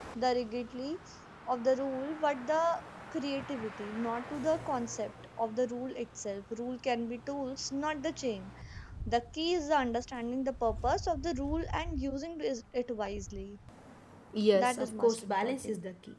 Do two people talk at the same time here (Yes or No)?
Yes